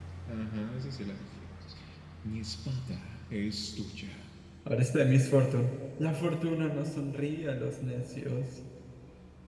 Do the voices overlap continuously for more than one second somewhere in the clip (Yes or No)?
No